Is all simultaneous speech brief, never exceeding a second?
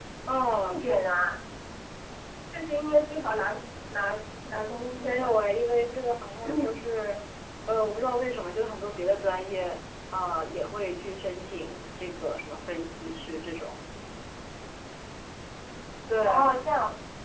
Yes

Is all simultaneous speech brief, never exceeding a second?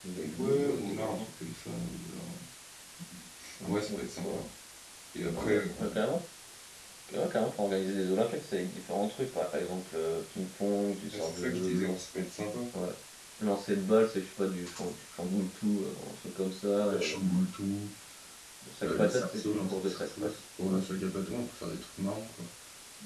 No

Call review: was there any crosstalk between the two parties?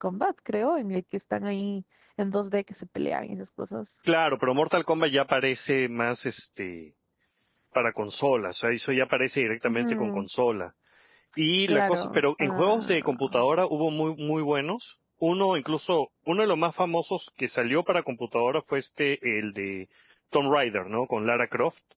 Yes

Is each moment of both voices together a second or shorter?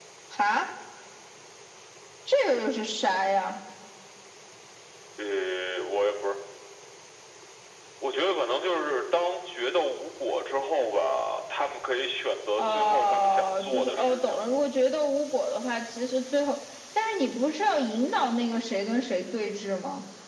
No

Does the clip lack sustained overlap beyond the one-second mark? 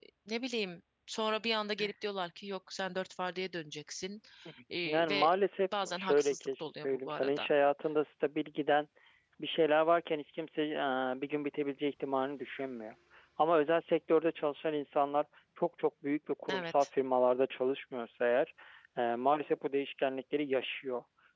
No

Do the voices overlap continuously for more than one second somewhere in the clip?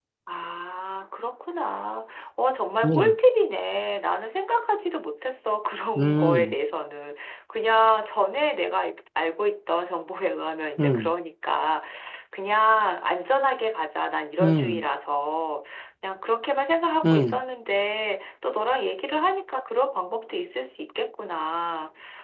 No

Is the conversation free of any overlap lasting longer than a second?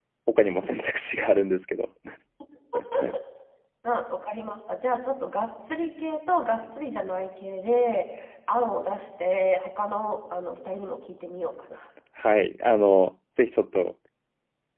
Yes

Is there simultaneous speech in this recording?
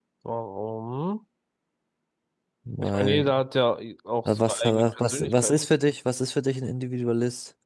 Yes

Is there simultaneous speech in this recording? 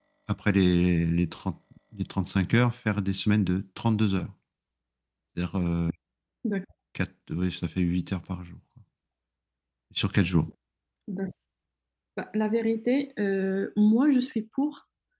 No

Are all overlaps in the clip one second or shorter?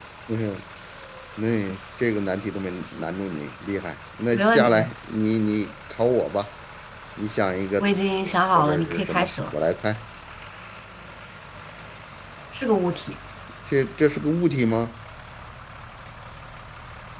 No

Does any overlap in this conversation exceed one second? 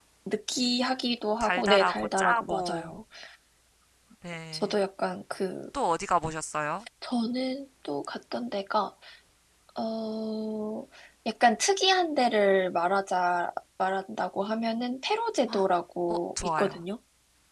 Yes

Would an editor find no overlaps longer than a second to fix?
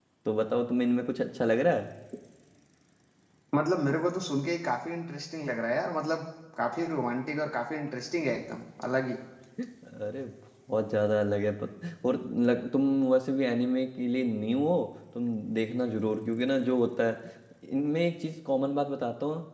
Yes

